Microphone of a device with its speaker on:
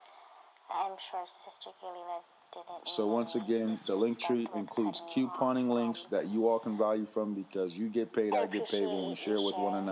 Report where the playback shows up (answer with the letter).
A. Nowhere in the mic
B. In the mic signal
B